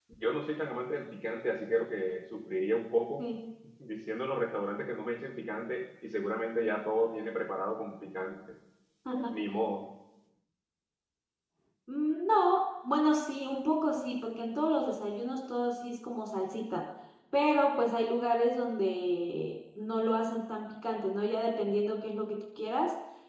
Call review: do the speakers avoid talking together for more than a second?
Yes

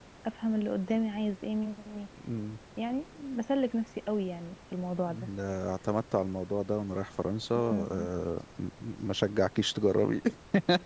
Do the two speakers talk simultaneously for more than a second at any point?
No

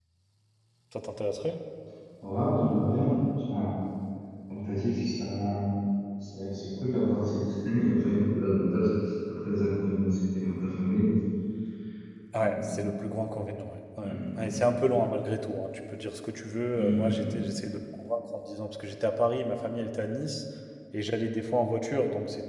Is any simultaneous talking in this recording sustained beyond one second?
No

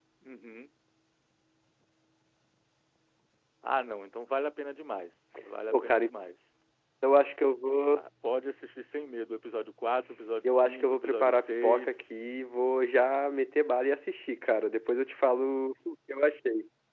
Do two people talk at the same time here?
Yes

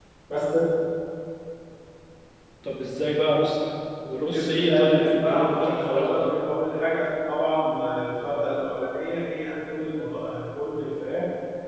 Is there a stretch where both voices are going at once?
Yes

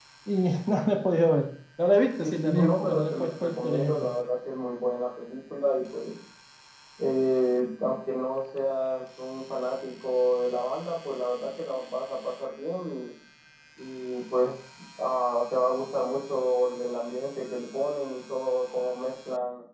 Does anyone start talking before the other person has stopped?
Yes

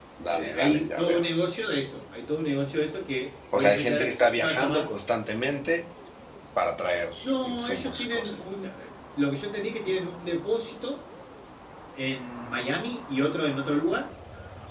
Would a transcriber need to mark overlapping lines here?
Yes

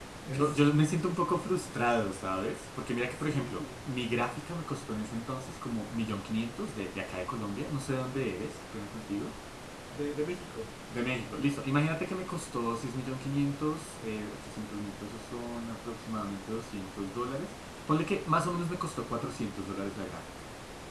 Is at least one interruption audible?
Yes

